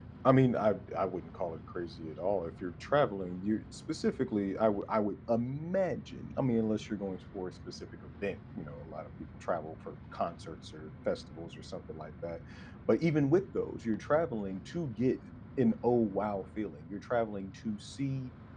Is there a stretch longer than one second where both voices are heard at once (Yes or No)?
No